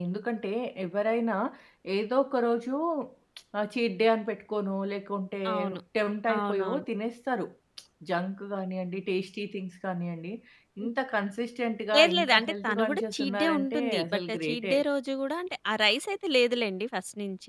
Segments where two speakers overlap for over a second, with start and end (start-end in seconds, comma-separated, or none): 12.0-14.7